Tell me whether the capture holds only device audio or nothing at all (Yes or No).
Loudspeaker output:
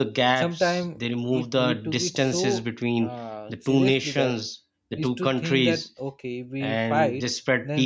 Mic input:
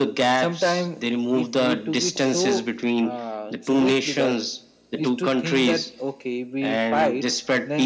Yes